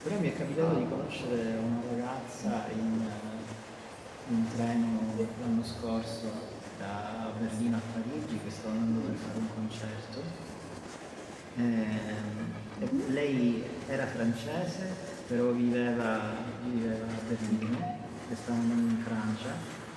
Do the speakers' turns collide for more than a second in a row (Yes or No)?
No